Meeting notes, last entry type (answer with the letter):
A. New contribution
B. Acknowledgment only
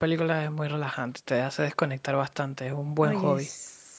A